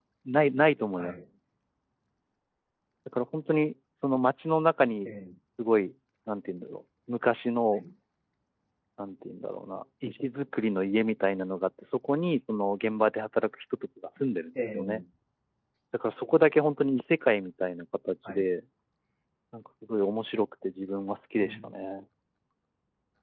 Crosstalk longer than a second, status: none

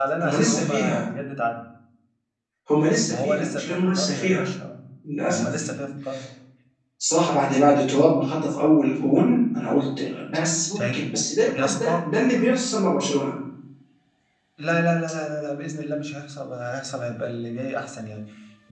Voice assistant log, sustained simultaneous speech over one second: present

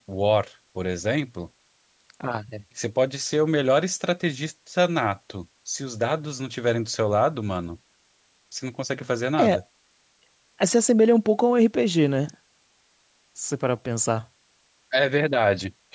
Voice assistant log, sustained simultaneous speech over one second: none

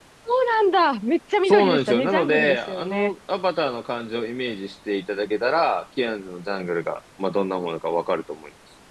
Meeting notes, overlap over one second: present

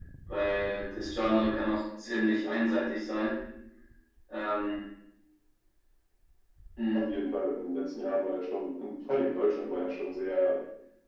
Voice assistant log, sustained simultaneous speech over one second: none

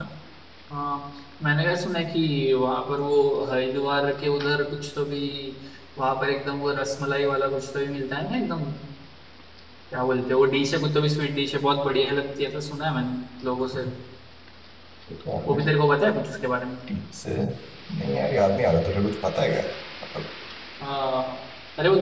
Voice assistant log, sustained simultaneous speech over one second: none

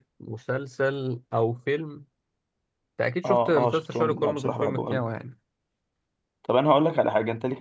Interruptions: present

